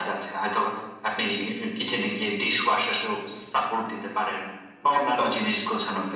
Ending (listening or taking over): listening